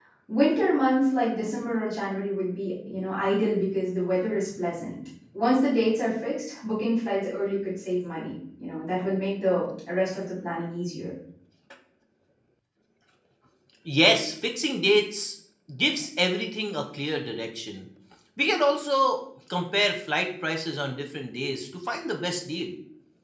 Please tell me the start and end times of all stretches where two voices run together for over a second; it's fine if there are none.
none

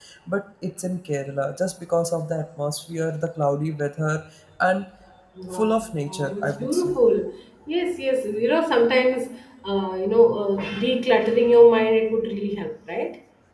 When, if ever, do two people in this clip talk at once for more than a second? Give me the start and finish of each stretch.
5.5-6.9

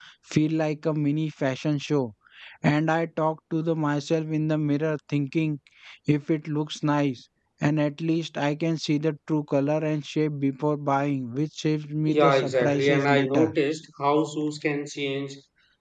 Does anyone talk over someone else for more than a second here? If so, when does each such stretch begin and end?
12.1-13.5

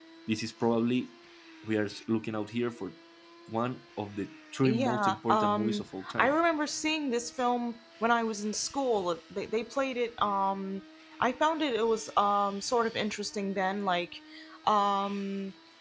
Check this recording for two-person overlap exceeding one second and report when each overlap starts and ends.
4.6-6.3

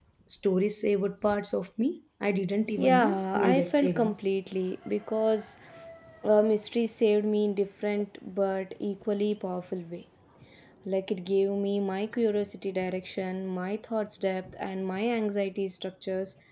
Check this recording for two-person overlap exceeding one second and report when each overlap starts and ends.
2.8-4.2

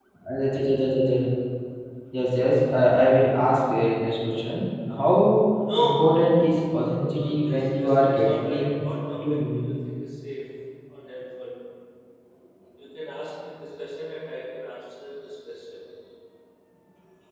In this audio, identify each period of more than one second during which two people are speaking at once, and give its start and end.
7.1-8.7

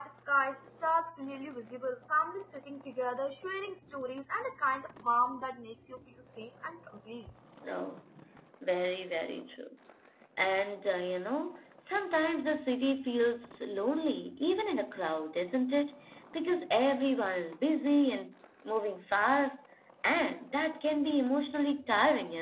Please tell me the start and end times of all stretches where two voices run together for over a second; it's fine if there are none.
none

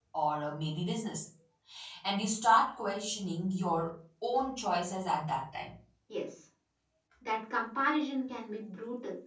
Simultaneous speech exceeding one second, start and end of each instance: none

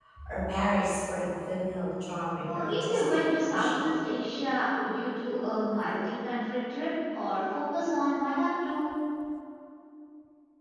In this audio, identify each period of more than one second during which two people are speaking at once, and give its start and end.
2.4-3.9

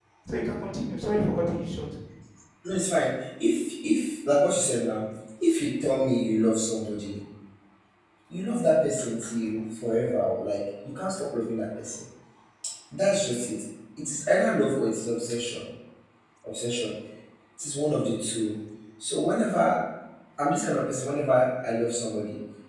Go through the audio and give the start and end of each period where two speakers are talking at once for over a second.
none

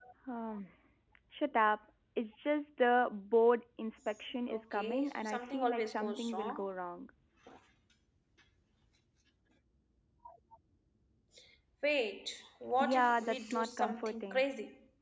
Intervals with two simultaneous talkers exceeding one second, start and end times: 4.5-6.7, 12.8-14.4

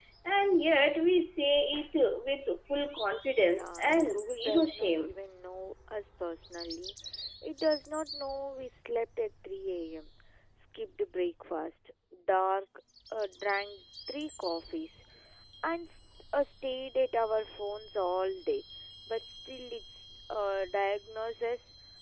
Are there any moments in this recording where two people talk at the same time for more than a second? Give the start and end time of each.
3.4-5.2

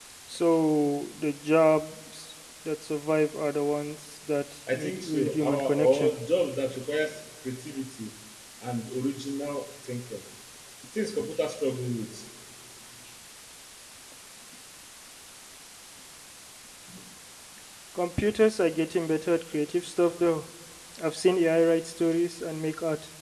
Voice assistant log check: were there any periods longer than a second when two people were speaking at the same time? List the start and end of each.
4.7-6.1

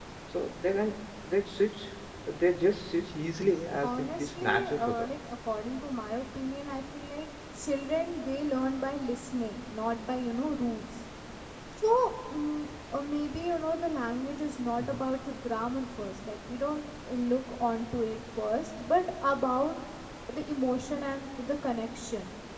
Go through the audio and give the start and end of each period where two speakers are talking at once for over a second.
3.8-5.1

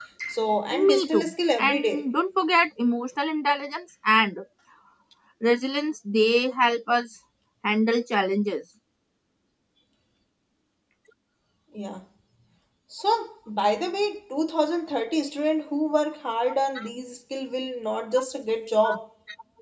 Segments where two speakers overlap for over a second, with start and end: 0.8-2.1

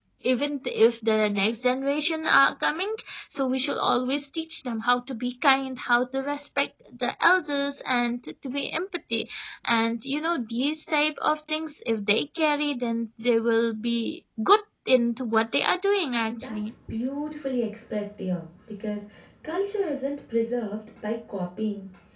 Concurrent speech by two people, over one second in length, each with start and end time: none

